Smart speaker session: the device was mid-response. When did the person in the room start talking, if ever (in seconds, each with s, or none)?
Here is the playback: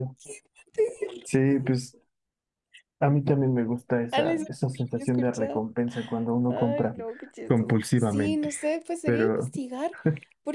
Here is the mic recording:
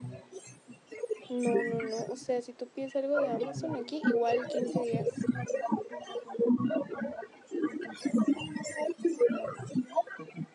1.3 s